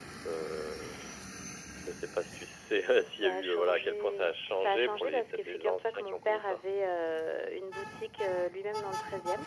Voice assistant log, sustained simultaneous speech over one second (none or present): present